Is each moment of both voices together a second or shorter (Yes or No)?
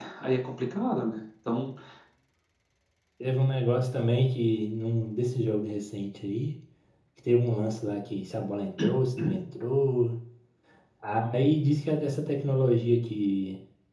Yes